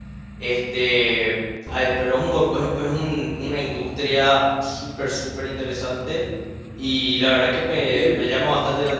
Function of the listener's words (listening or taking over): listening